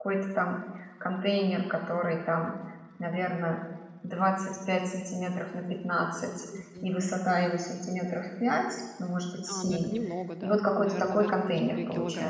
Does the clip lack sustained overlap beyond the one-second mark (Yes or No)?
No